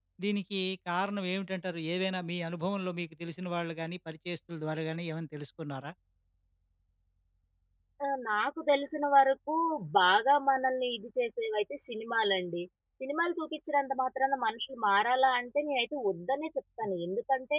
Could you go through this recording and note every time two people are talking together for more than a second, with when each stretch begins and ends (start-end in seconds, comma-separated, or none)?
none